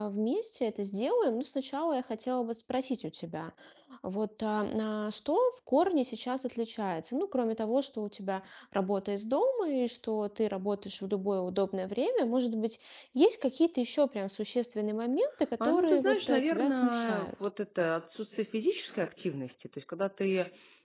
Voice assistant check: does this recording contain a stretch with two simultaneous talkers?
Yes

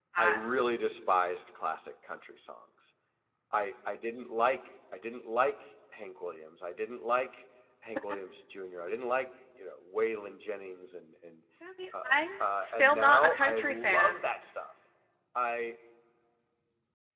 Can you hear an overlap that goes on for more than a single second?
Yes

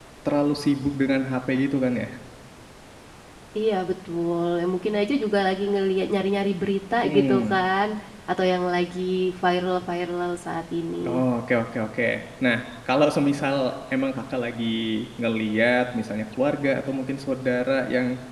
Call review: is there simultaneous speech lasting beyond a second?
No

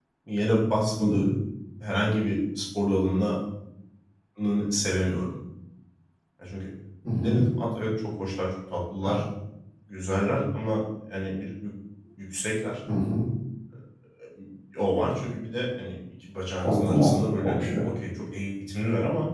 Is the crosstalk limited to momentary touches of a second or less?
No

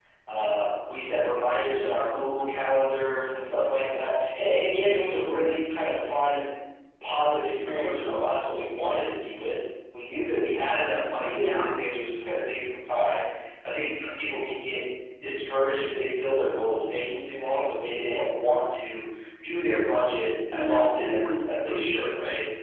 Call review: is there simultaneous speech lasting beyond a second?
Yes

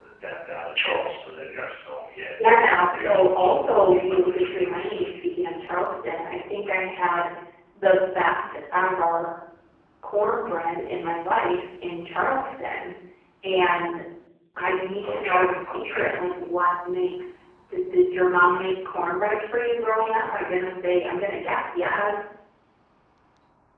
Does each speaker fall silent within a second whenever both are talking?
No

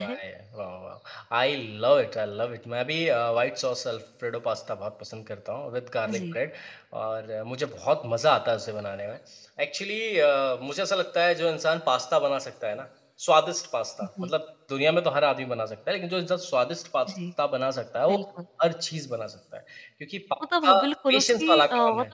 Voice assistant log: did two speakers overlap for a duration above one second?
Yes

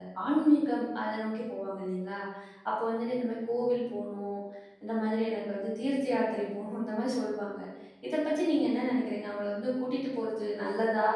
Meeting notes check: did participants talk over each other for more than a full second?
No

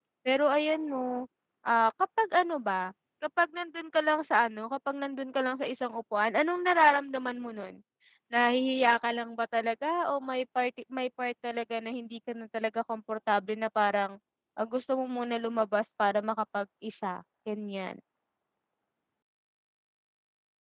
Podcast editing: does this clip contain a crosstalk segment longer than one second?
No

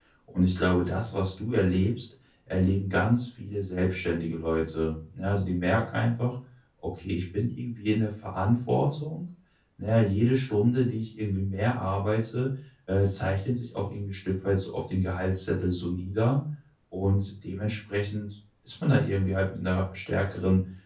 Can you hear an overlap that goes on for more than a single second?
No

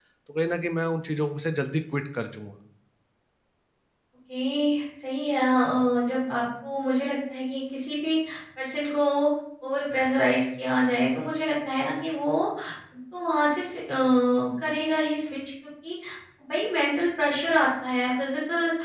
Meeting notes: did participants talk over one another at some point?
No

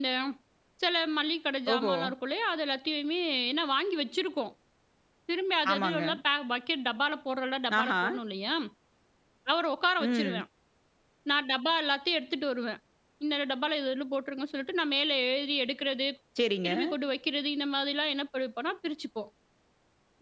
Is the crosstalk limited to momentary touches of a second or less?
Yes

